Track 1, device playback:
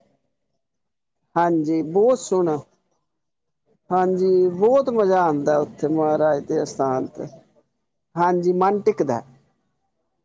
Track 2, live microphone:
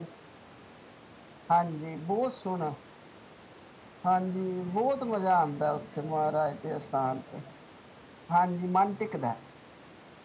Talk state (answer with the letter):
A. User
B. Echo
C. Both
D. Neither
B